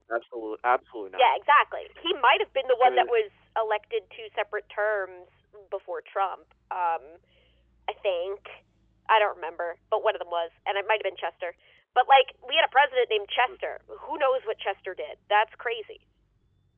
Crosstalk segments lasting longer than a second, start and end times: none

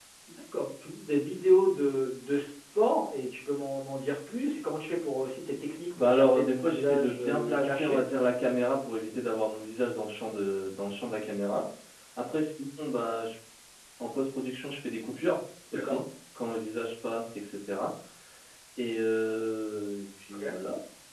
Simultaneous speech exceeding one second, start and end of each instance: 6.0-8.0

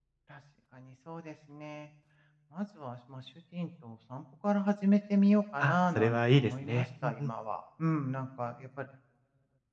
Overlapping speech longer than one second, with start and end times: 5.6-7.3

